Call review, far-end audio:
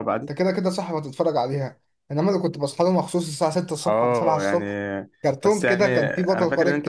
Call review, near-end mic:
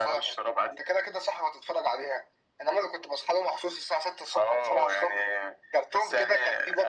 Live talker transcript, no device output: none

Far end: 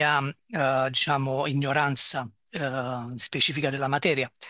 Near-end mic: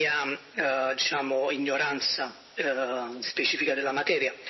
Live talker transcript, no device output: none

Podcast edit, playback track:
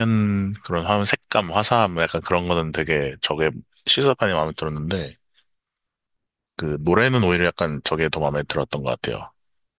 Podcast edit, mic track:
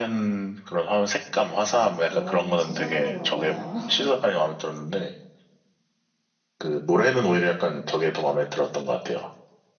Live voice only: 뭐랄까 영웅 서사 구조라고 해야 하나?

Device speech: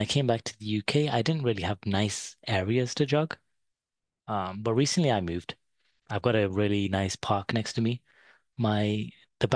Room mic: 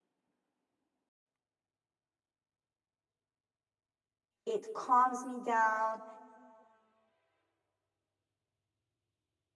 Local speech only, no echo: it calms me down.

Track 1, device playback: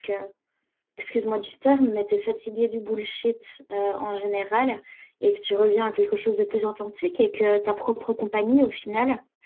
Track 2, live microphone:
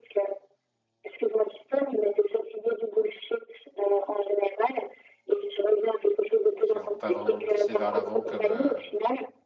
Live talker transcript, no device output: qui vont pas vraiment me pousser vers l'avant, comme euh,

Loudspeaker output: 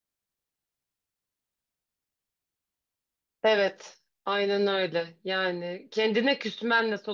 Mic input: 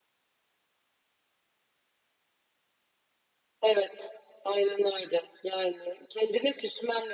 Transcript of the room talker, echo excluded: none

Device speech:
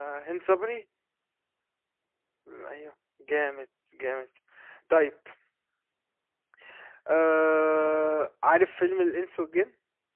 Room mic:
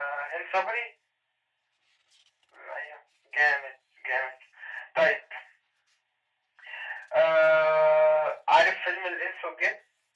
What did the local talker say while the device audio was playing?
none

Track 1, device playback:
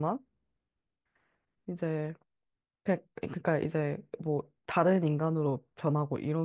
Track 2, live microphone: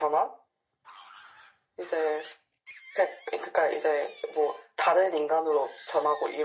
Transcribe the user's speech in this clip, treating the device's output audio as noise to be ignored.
none

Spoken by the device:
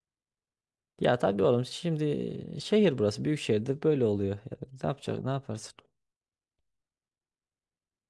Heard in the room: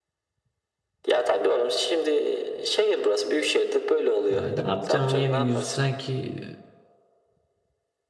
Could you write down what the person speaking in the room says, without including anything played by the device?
Ya ne yapacağım yeni yüz sanki

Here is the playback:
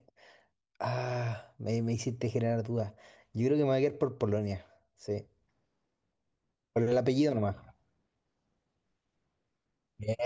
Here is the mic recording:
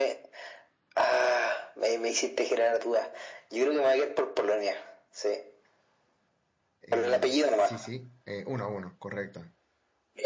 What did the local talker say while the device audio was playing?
Eh, sí, sí. eh, uno a uno, correcto.

